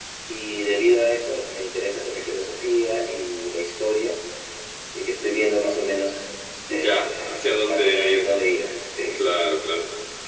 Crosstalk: present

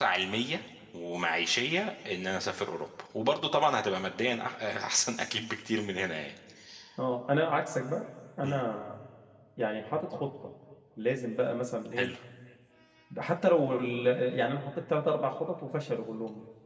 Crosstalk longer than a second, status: none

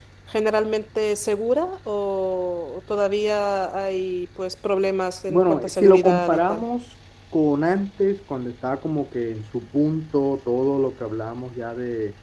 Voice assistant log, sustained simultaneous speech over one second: present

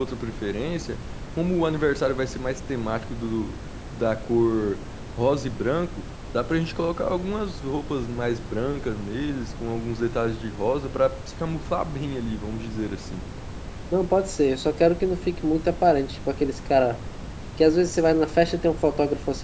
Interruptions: none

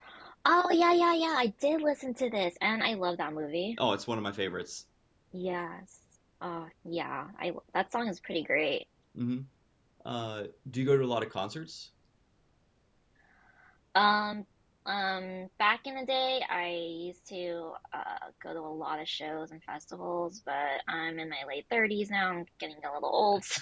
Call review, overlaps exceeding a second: none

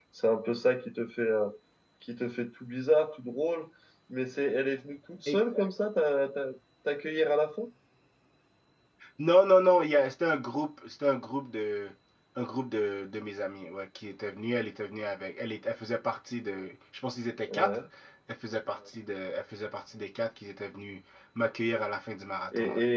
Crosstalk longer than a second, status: none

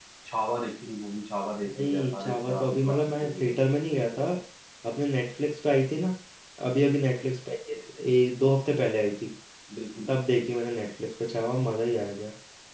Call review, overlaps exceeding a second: present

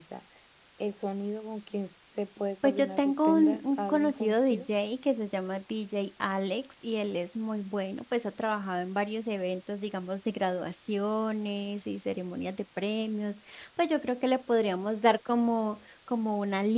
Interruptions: present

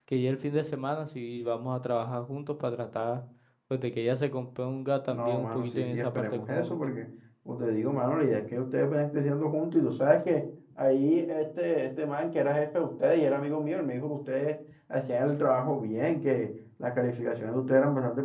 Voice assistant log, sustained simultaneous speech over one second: present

